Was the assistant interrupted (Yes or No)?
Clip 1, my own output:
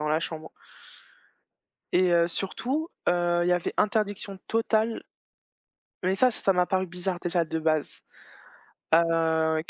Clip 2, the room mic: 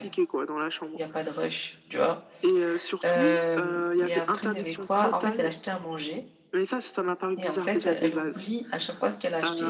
Yes